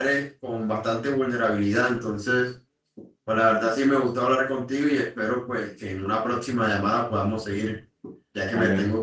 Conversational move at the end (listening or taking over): taking over